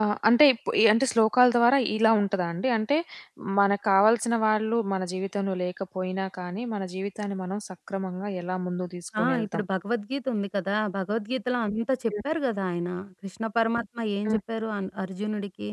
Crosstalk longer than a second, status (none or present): none